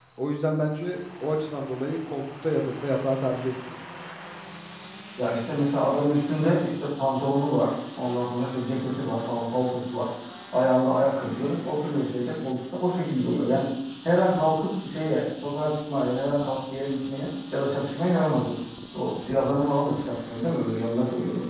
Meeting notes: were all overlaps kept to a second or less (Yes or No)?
Yes